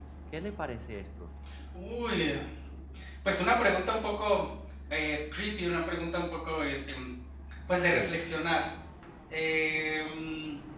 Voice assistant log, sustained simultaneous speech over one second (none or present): none